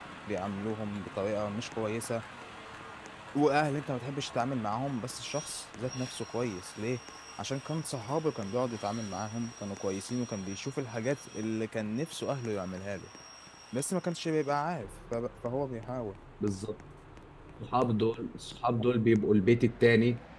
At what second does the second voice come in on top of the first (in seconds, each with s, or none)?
none